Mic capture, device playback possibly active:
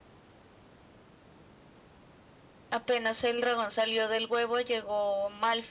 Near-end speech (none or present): present